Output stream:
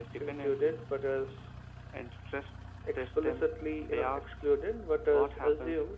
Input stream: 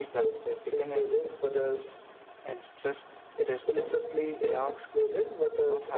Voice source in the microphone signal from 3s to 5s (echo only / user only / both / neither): echo only